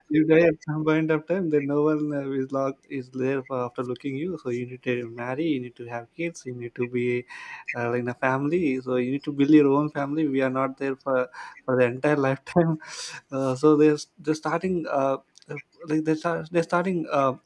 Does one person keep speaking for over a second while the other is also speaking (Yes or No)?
No